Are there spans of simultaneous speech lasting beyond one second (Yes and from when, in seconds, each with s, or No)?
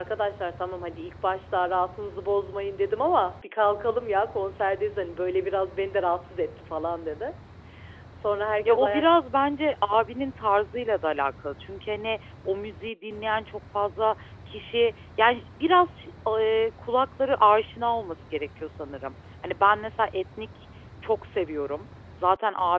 No